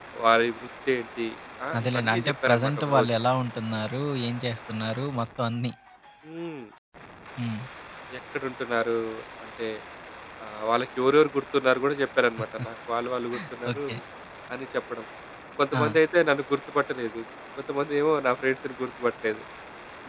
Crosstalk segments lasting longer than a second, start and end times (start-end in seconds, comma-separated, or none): 1.8-3.1